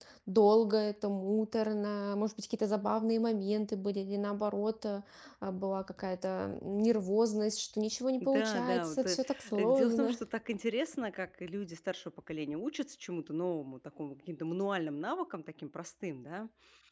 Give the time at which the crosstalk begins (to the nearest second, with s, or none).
8 s